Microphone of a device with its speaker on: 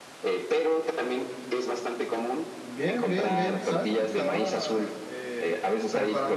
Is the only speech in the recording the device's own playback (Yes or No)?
No